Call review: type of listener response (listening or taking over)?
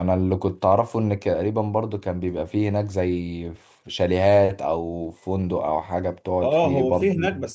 taking over